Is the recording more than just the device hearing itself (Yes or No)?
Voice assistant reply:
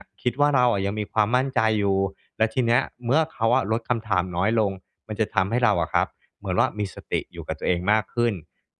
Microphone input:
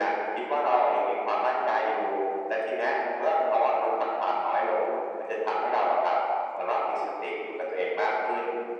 No